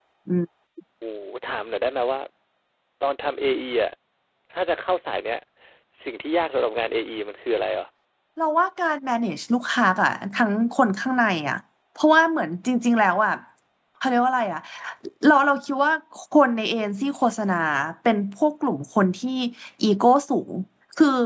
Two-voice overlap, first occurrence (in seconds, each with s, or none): none